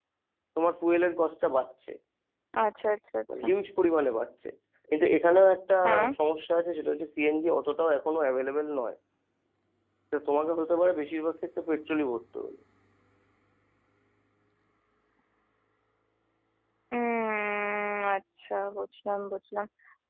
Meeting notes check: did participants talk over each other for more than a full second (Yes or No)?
No